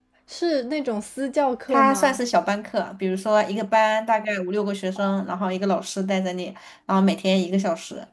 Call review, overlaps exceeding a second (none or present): none